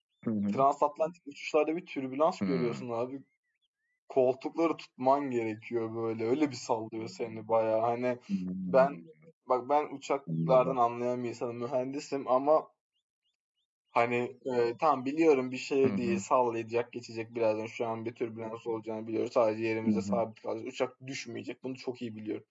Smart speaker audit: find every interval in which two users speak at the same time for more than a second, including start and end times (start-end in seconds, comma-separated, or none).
none